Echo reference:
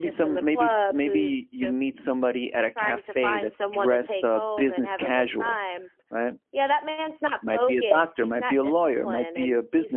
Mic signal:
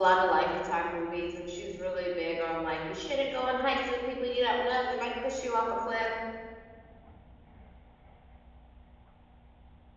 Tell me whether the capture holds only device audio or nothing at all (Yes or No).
No